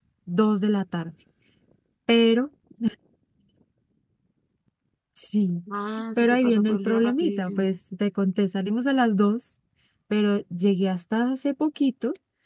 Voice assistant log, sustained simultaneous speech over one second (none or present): present